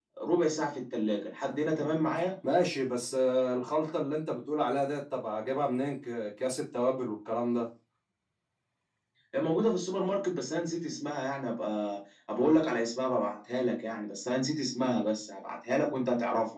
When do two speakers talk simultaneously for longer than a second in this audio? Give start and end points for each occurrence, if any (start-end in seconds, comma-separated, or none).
none